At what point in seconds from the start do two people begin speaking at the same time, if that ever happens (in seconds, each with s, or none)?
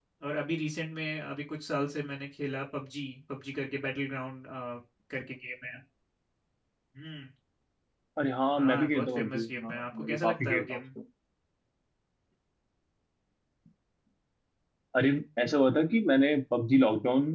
8.6 s